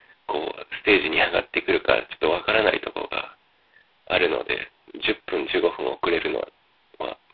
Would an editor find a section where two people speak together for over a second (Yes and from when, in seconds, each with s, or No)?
No